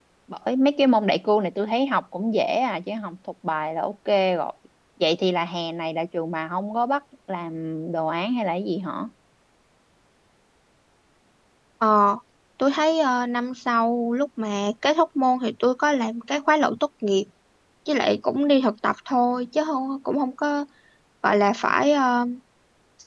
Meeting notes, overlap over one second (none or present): none